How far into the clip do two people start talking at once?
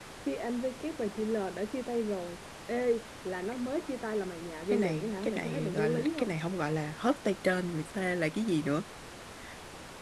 5 s

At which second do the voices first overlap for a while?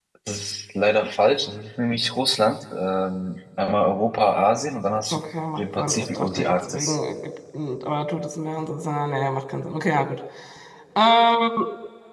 6 s

